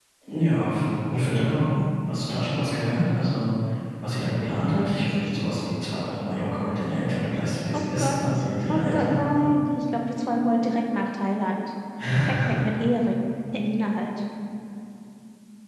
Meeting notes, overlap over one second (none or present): none